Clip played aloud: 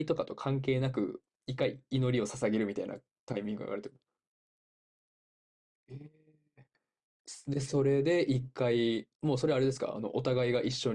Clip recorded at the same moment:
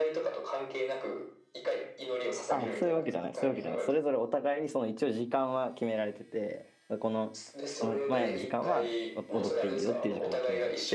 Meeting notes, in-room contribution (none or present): present